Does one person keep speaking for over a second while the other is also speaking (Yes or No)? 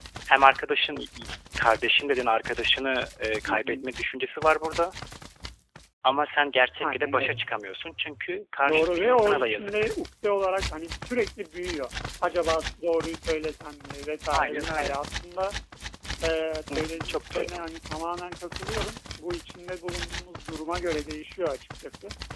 Yes